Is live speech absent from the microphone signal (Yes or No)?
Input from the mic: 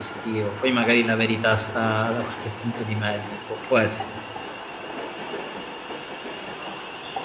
No